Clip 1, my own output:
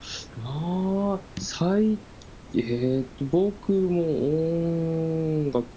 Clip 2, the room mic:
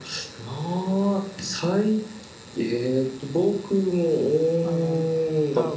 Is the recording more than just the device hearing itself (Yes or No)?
Yes